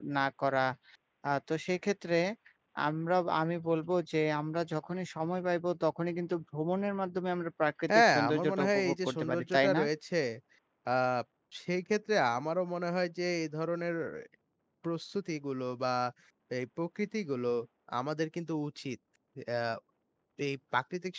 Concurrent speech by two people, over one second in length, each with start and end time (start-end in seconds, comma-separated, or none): 7.9-9.8